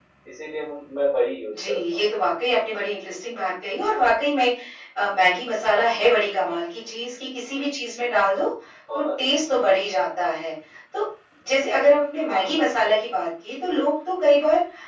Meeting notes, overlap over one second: none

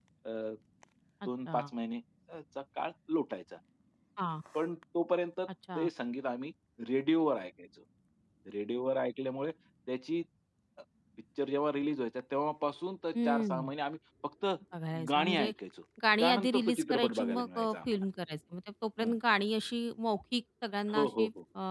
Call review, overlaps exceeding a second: present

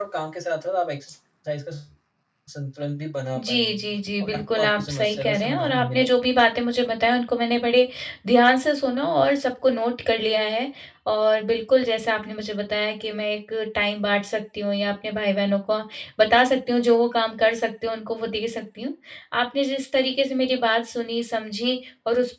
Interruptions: present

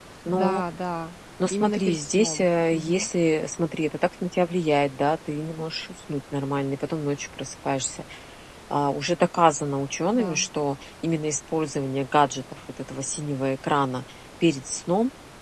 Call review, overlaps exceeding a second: present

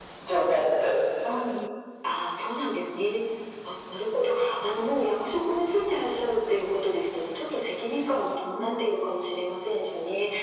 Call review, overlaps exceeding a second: none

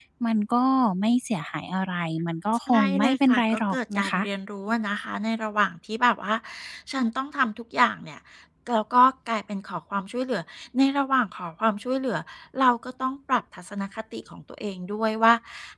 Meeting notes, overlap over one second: present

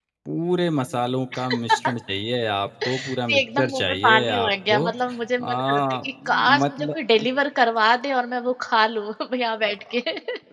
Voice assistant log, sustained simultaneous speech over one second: present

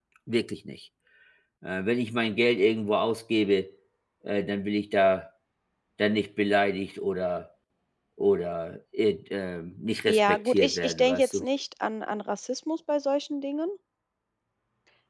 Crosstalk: present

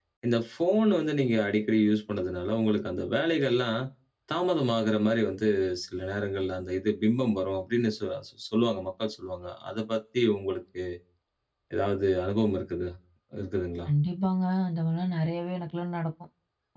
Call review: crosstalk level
none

